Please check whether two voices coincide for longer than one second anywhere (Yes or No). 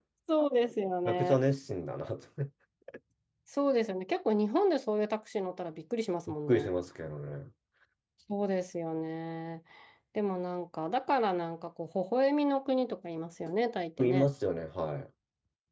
No